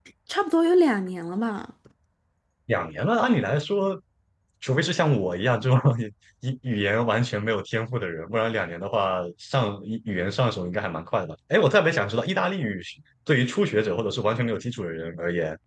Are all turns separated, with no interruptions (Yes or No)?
Yes